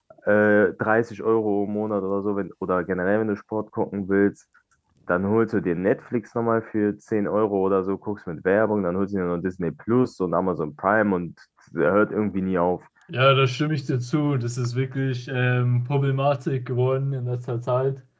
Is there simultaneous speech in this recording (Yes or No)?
No